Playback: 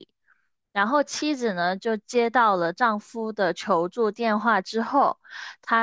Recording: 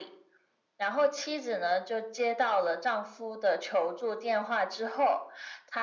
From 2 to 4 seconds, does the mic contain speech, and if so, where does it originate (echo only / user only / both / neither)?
echo only